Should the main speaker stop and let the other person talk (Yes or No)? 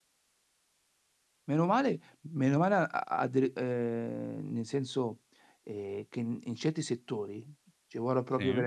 No